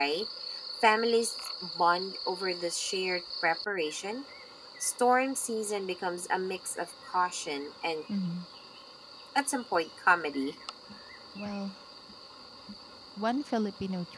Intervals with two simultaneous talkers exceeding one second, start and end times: none

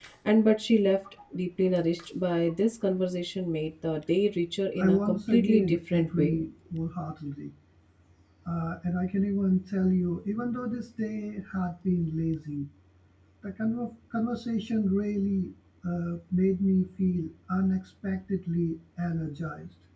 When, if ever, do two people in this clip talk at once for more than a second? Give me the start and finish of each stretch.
4.8-6.3

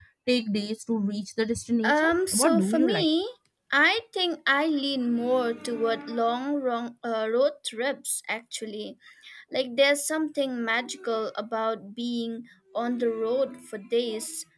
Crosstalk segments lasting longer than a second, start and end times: 1.8-3.0

